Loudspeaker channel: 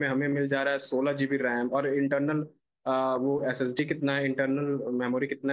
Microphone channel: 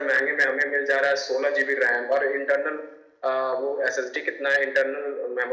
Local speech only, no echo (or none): none